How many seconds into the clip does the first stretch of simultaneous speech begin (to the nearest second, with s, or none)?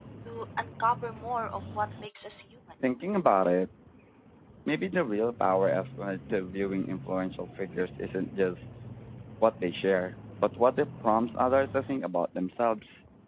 none